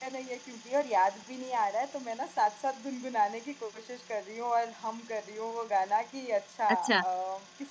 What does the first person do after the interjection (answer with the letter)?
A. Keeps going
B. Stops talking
A